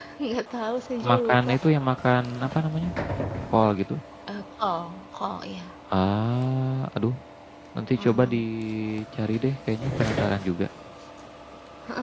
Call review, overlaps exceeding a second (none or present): none